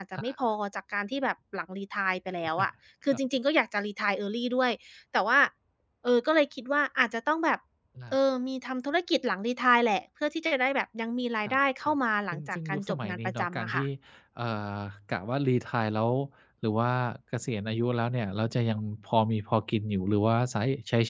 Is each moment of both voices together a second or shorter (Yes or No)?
No